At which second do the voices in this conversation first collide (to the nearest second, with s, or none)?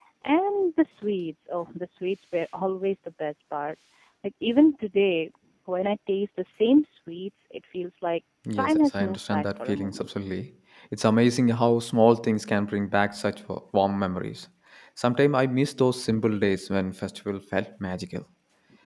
8 s